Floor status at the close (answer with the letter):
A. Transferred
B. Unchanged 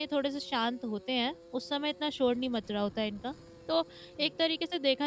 B